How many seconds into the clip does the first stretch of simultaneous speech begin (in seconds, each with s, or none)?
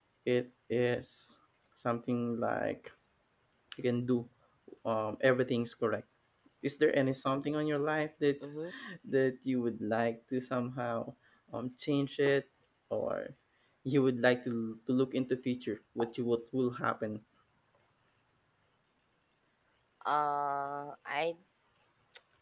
none